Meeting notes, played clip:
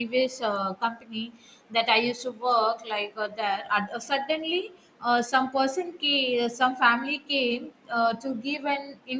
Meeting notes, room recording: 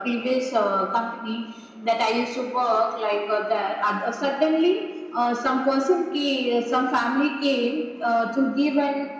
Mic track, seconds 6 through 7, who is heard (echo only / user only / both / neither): echo only